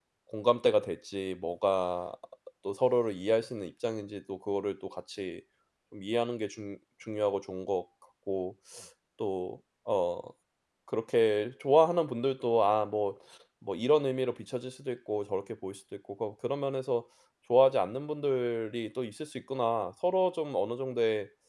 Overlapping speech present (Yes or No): No